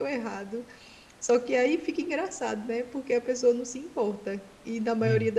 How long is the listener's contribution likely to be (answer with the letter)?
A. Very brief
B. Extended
A